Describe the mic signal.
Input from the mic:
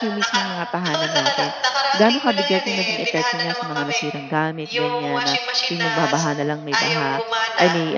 both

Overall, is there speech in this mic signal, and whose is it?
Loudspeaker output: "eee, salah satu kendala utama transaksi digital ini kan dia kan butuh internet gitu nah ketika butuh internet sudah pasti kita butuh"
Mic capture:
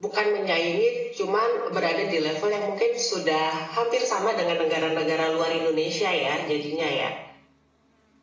user only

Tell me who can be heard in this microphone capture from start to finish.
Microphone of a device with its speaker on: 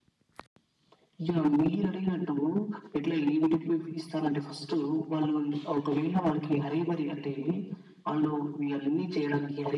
echo only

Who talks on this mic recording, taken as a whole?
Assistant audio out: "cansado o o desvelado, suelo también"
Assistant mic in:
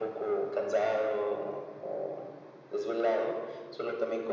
echo only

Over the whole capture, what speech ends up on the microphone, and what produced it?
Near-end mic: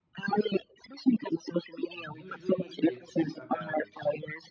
both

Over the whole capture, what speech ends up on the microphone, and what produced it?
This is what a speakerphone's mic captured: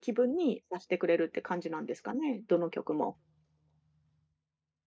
user only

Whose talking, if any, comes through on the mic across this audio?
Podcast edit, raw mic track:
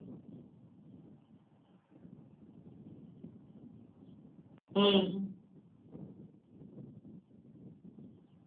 user only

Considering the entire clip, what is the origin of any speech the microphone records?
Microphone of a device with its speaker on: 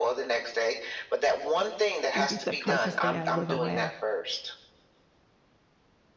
both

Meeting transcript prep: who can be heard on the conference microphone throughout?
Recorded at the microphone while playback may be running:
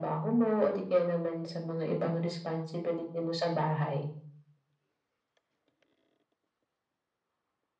echo only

